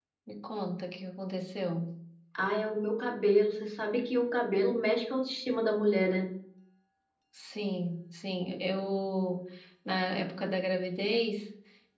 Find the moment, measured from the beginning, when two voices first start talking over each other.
none

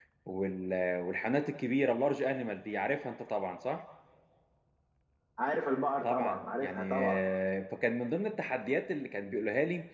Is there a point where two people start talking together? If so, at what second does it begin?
6.0 s

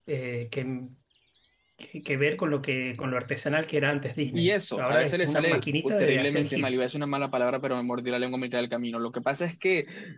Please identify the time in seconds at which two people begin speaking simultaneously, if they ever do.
4.3 s

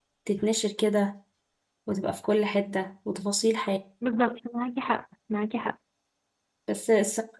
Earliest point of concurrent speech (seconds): none

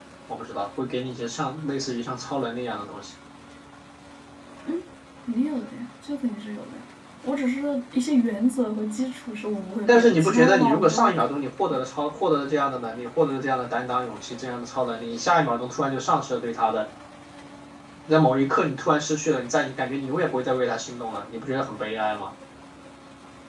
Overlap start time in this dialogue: 9.9 s

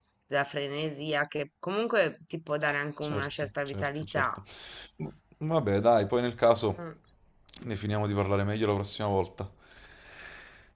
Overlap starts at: 3.0 s

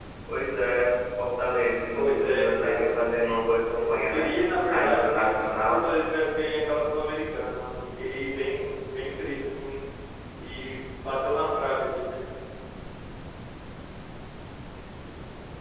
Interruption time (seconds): 1.9 s

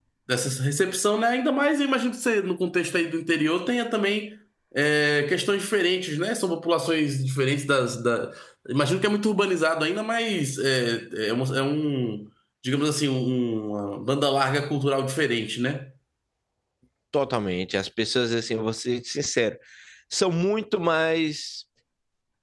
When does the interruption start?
none

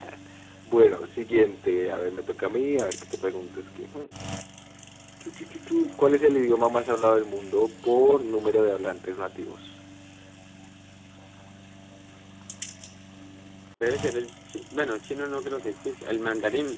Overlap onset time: none

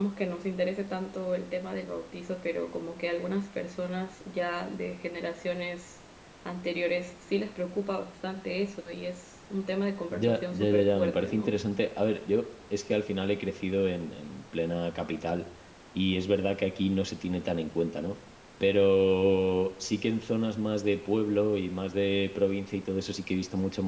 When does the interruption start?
10.1 s

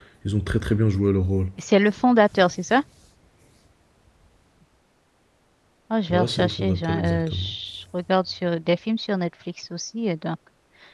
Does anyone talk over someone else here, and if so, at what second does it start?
6.1 s

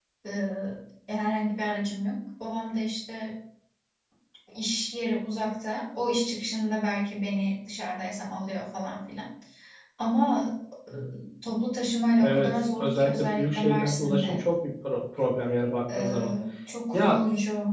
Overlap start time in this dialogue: 12.2 s

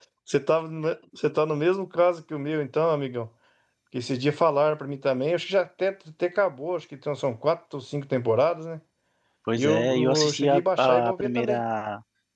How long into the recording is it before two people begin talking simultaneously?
9.6 s

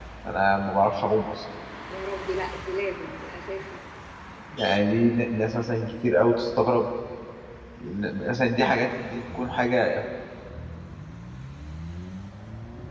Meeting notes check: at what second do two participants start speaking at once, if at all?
none

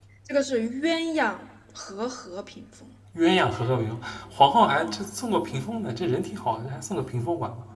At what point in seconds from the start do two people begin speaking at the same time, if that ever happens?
none

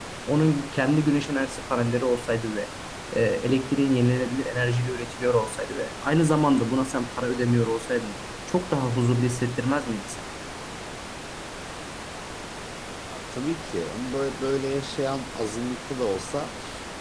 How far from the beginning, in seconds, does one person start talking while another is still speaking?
none

